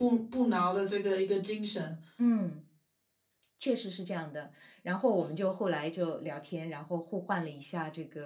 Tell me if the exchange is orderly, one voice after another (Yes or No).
Yes